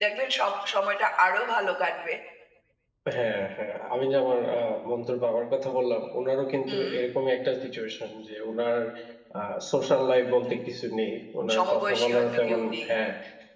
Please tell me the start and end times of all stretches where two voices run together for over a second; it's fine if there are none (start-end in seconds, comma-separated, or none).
11.5-12.9